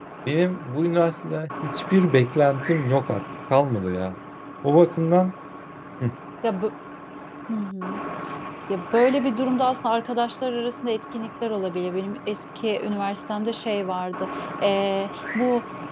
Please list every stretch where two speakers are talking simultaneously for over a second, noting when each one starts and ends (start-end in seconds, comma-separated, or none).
none